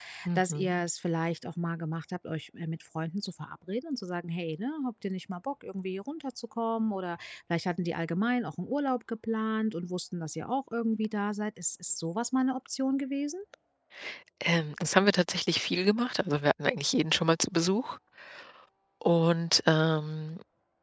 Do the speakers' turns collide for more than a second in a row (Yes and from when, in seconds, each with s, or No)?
No